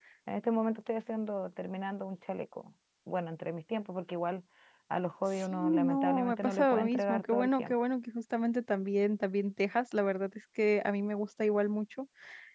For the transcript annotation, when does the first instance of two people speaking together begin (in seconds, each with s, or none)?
5.4 s